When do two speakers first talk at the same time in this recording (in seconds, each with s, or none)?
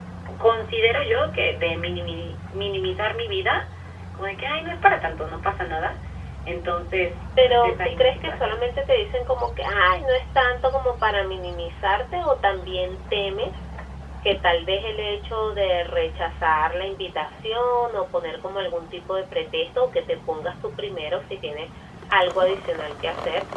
7.4 s